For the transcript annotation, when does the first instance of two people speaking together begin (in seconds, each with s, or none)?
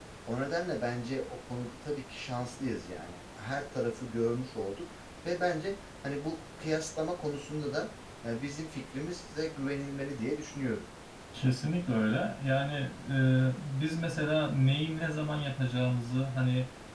none